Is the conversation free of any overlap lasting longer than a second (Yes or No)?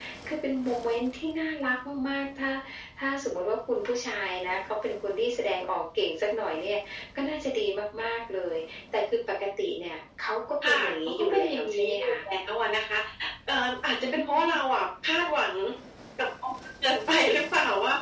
No